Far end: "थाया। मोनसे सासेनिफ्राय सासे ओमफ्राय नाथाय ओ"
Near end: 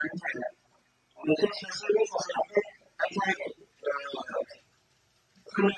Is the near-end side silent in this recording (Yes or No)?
Yes